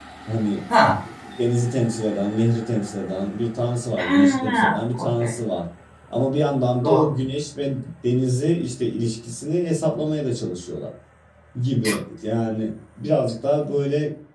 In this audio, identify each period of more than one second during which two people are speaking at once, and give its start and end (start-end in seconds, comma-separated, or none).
4.0-5.4